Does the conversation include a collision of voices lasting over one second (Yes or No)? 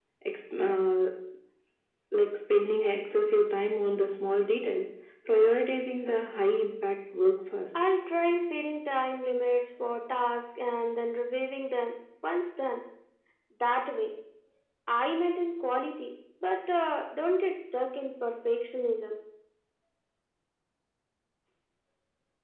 No